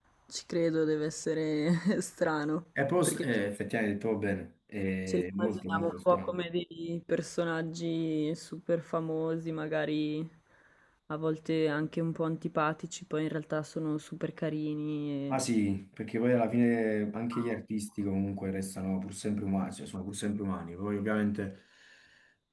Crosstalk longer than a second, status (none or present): present